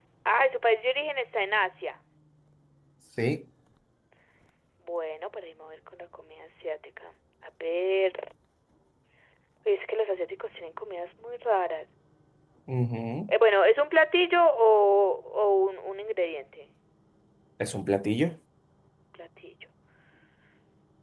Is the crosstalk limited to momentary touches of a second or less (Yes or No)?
Yes